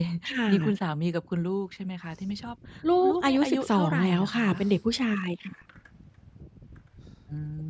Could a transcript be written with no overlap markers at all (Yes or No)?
No